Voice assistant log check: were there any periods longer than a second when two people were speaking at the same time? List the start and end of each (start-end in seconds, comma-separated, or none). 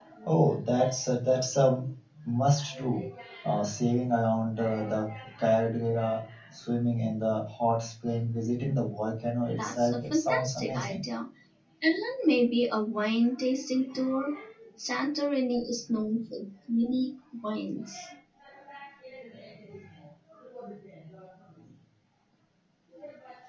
9.5-11.0